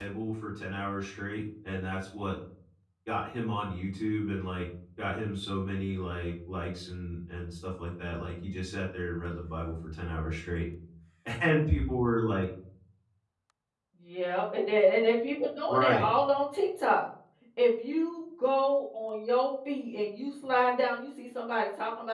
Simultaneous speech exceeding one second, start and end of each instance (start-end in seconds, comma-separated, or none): none